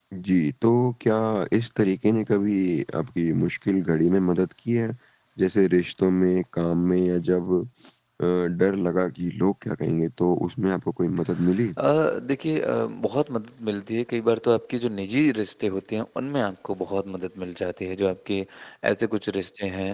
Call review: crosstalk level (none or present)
none